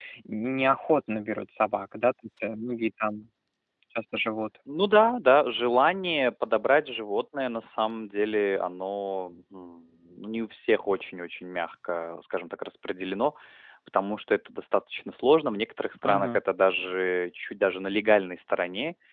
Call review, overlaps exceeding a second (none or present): none